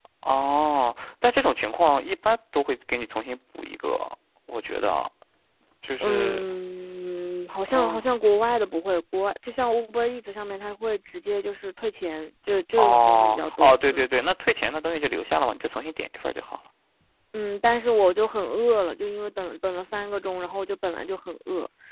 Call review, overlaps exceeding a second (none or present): present